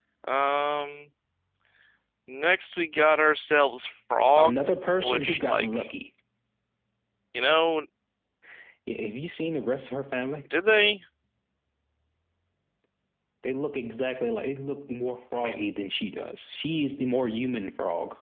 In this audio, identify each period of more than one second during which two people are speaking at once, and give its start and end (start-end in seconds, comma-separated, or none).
4.4-5.9